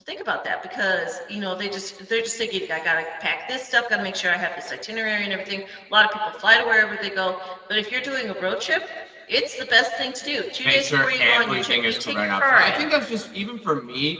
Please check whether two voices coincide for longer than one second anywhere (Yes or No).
Yes